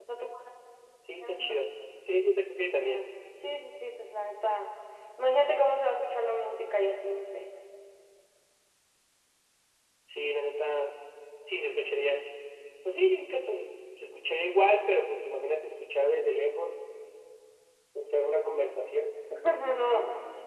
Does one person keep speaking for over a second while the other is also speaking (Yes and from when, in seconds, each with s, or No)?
No